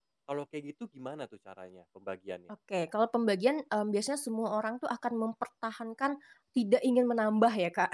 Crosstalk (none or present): none